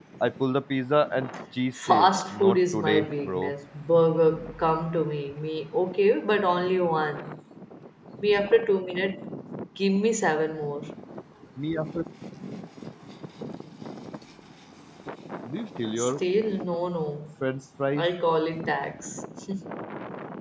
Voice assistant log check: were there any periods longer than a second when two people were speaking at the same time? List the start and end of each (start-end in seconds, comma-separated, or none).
1.9-3.5